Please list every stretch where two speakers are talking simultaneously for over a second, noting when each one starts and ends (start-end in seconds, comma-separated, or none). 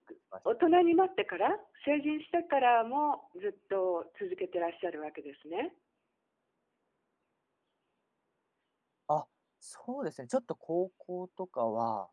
none